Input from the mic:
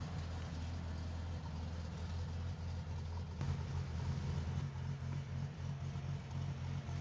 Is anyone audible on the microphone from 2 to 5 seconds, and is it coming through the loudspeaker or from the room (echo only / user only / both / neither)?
neither